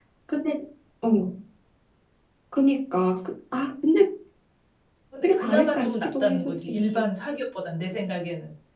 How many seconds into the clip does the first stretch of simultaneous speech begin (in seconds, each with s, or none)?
5.2 s